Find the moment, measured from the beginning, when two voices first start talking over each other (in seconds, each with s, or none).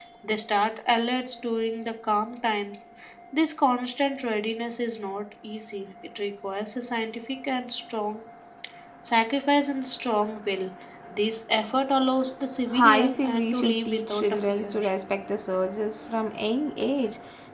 12.7 s